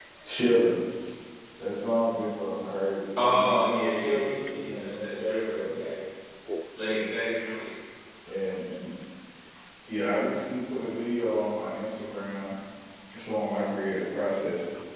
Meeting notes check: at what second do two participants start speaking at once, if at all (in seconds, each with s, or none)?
3.2 s